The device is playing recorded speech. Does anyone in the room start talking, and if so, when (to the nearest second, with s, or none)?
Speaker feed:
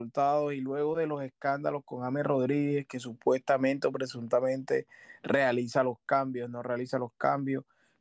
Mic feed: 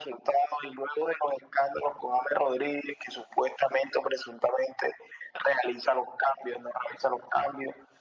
none